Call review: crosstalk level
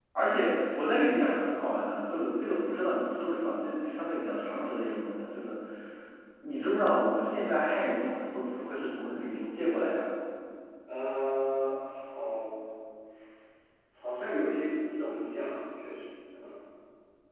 none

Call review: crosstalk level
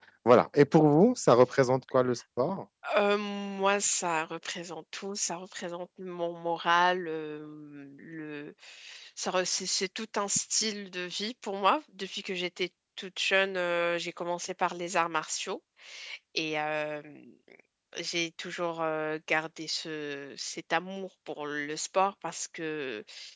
none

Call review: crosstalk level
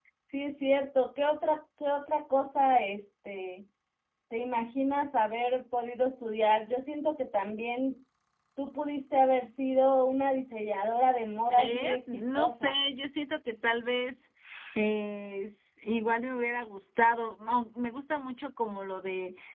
present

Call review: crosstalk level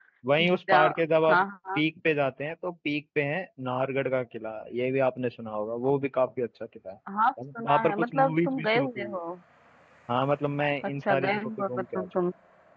present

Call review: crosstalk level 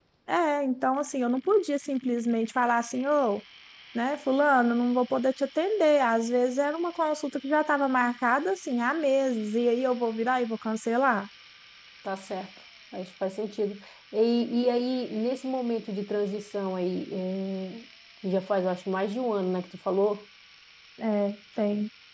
none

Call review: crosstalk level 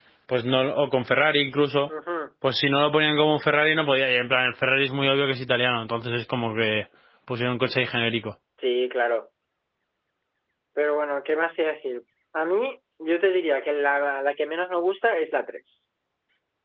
none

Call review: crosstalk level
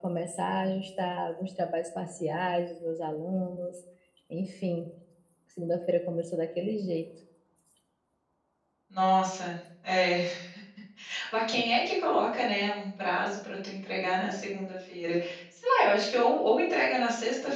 none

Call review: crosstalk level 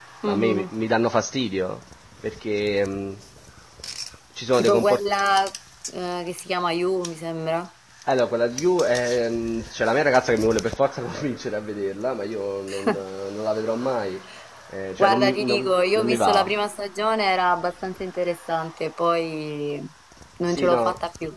present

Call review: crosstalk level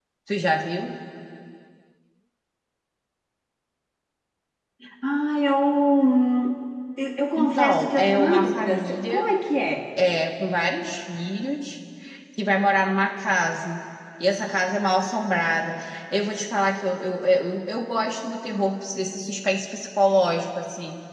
present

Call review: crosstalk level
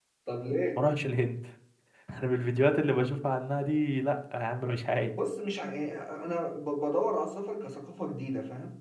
none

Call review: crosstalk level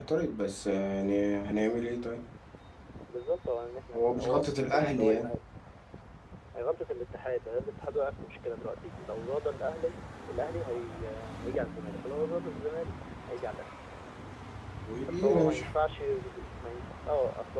present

